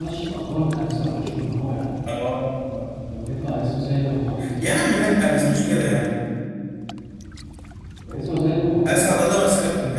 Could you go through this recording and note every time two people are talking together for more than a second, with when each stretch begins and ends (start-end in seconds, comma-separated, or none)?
none